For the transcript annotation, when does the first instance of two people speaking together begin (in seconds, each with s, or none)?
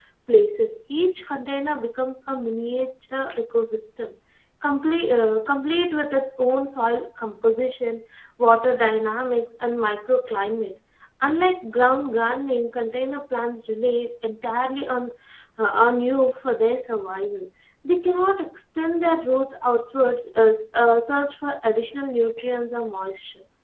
none